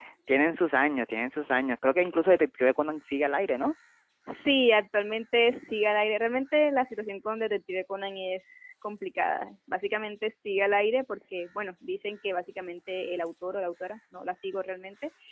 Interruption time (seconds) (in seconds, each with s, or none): none